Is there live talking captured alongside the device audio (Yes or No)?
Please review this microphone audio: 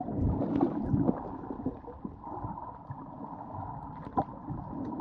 No